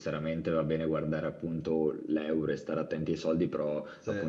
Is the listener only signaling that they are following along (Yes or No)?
Yes